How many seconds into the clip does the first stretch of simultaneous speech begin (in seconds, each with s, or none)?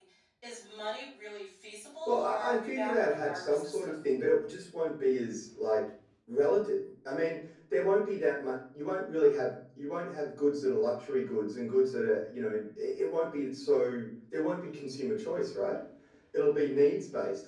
2.1 s